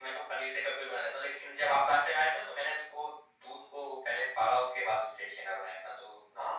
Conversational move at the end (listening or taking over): taking over